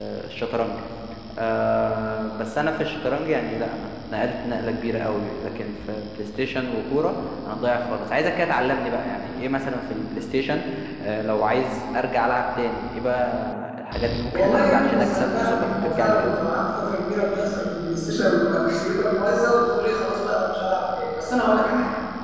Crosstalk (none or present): present